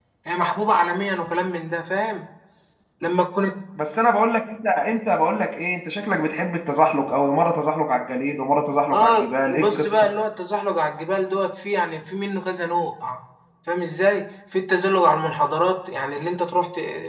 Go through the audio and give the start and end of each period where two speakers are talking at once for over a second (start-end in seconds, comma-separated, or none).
8.9-10.1